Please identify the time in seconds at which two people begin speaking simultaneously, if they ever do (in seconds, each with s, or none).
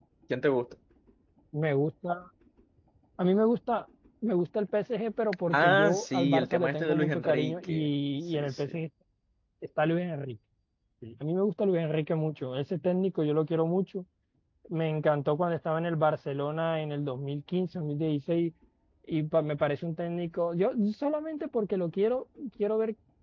5.5 s